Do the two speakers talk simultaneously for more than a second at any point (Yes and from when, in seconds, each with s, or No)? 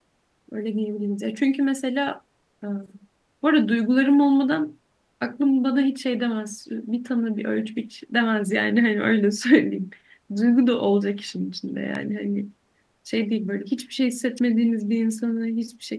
No